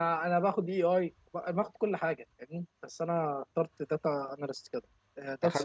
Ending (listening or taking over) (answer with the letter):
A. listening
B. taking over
A